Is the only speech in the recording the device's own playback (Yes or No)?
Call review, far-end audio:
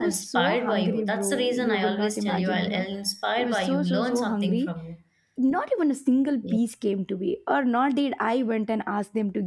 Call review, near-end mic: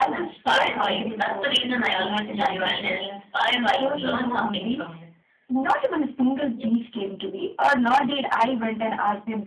Yes